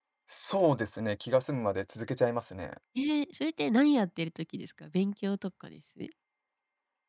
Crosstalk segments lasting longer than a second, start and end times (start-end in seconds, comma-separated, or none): none